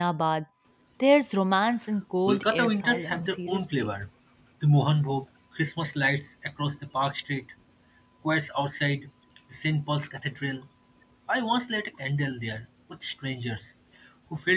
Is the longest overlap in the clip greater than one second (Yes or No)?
Yes